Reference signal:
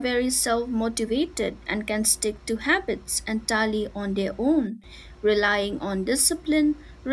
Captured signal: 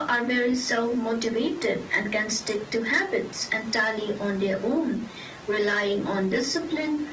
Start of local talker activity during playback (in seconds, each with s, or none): none